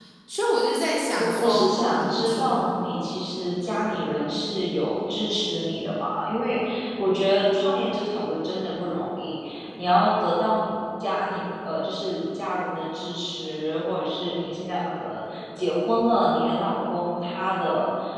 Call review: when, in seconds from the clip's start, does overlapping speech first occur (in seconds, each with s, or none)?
1.2 s